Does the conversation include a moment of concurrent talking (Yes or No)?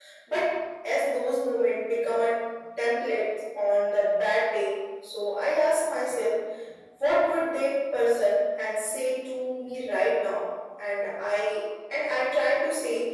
No